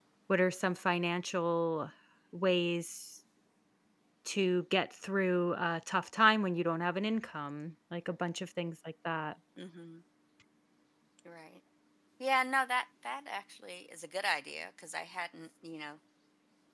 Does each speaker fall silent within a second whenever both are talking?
Yes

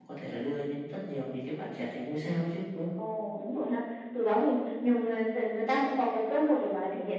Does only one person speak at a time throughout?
Yes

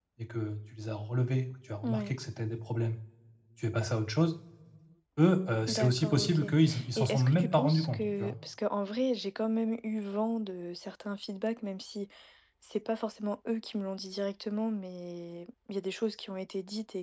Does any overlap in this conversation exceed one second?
Yes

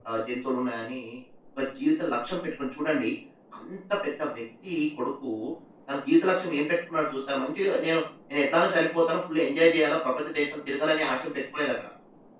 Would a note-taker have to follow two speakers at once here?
No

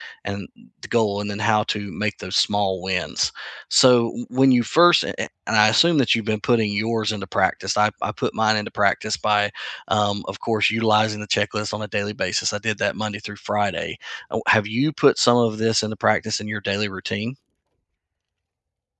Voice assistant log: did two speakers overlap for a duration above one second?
No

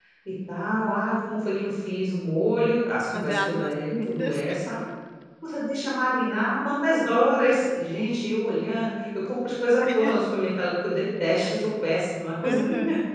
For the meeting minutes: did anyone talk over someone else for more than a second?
Yes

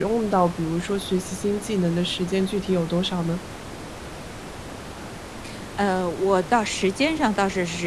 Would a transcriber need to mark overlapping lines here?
No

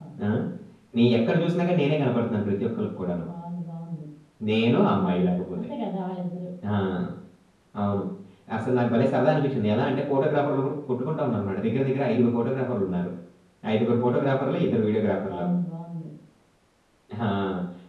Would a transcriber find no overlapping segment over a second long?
Yes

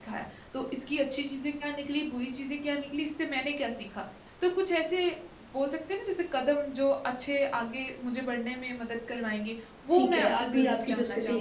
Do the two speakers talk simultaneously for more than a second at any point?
Yes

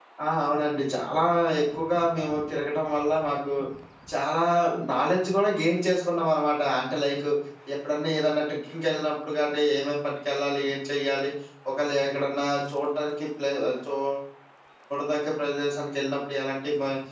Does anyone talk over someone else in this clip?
No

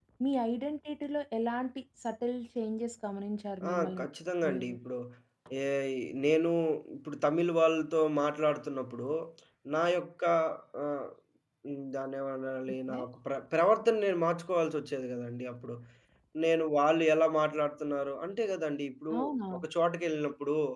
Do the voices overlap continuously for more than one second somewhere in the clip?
No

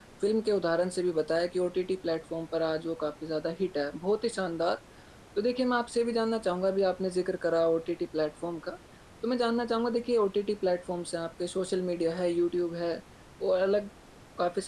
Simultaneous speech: No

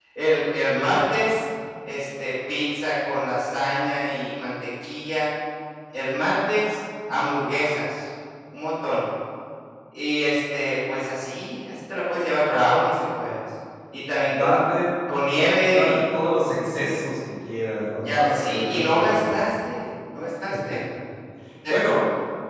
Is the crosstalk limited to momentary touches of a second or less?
No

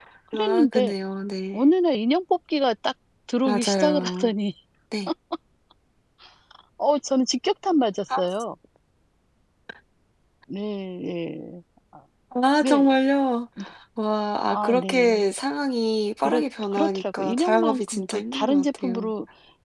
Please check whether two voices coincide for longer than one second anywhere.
Yes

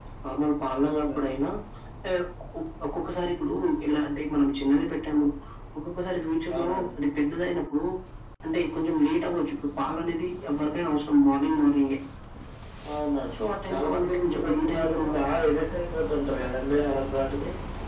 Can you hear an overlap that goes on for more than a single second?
Yes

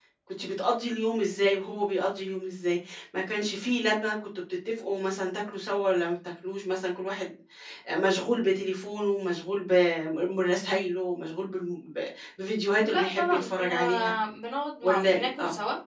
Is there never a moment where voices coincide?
No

